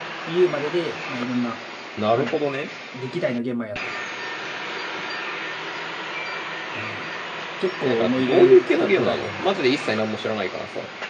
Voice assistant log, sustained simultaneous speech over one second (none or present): present